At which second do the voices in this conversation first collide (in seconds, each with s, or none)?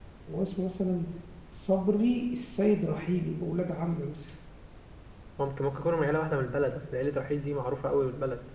none